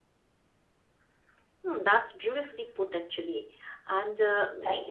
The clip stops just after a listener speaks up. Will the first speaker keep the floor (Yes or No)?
Yes